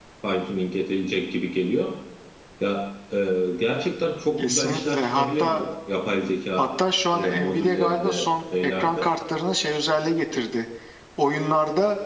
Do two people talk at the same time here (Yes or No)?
Yes